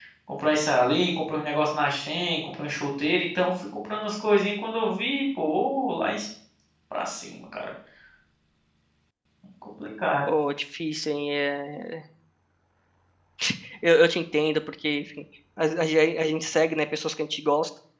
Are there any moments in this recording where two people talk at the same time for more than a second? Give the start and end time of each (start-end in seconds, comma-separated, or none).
none